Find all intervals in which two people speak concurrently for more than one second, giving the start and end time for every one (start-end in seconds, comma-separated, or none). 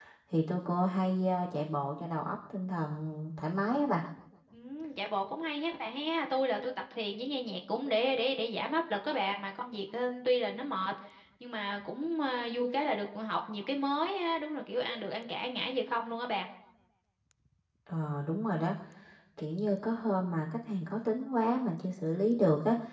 none